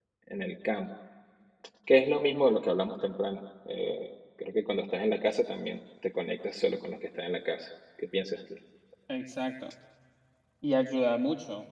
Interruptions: none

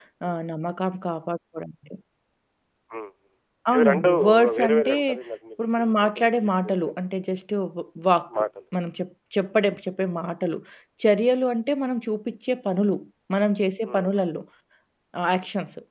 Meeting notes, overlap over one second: present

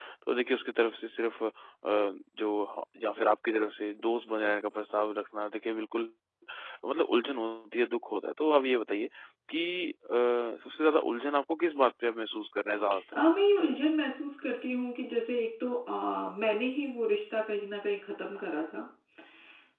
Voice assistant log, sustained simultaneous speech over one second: none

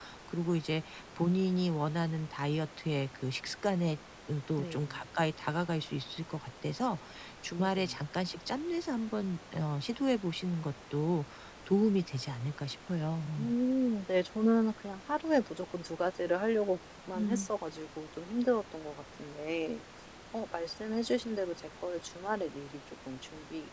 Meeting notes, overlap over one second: none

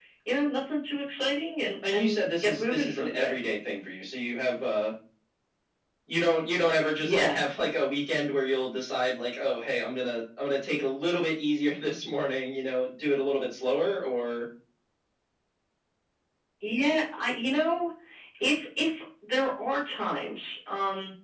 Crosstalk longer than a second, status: present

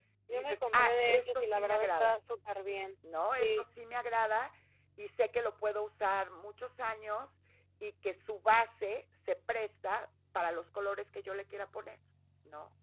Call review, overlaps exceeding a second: present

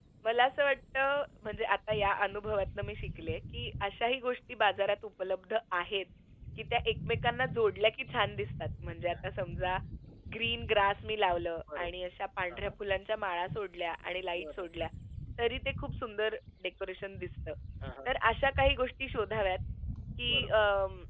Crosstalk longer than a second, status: none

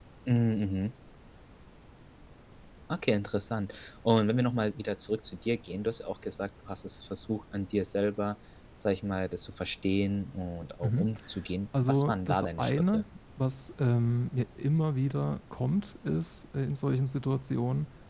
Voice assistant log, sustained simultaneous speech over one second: present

